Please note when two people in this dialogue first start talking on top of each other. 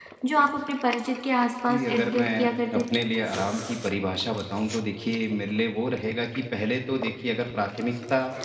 1.7 s

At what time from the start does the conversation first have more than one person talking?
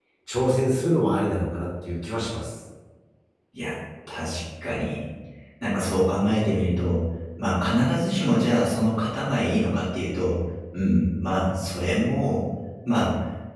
none

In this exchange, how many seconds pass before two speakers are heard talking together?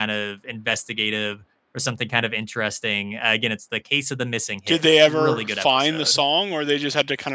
4.7 s

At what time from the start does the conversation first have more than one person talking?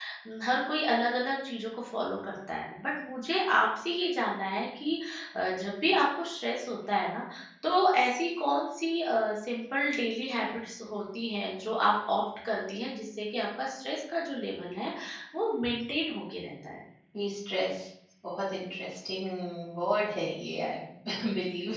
none

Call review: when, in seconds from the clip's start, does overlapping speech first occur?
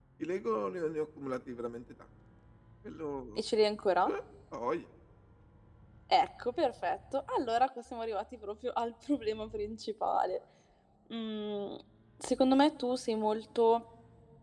none

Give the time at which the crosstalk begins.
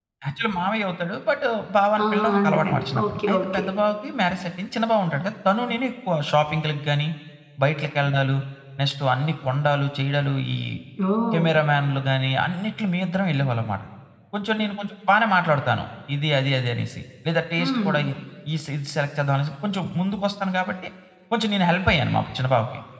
2.0 s

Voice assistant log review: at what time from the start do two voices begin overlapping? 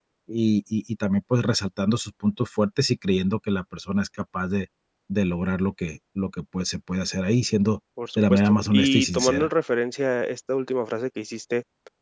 8.0 s

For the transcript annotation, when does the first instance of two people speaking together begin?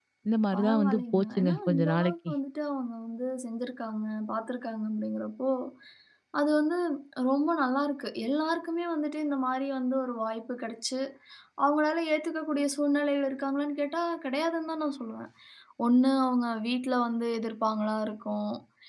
0.5 s

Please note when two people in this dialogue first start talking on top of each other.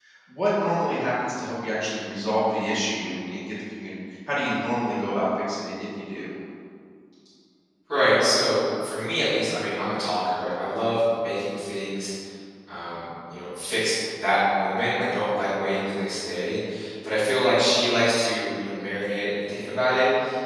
none

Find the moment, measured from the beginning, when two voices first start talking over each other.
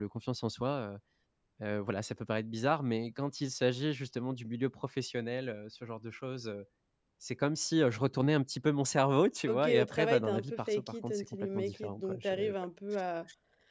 9.5 s

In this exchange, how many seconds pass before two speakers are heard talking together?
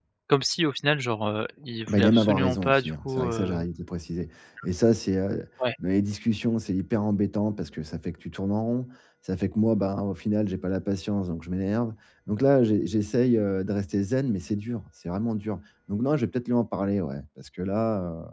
1.9 s

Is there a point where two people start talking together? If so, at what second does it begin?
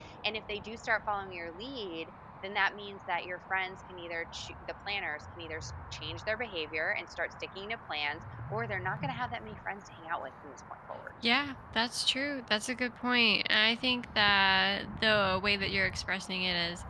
none

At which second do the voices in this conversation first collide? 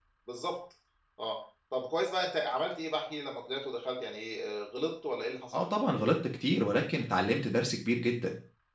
none

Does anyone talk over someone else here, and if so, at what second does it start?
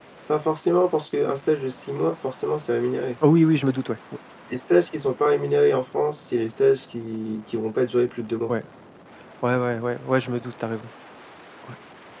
none

